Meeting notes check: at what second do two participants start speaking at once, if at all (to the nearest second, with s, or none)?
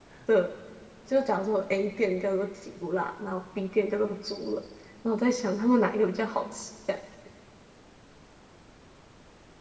none